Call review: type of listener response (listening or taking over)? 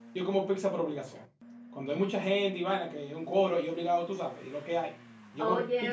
listening